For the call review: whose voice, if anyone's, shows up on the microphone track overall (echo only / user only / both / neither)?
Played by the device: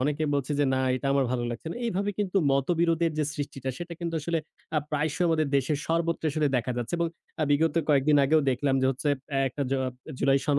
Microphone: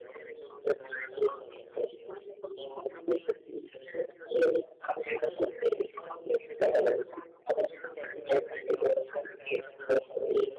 echo only